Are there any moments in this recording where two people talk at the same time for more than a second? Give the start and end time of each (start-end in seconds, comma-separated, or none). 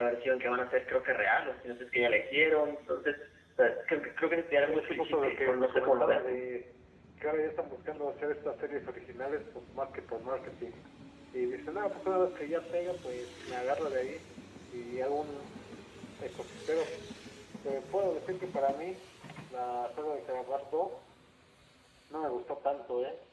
4.6-6.2